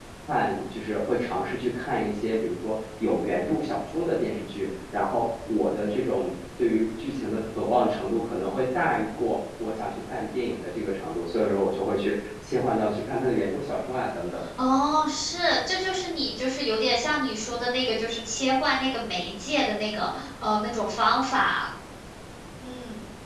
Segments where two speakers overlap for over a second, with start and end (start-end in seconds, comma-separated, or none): none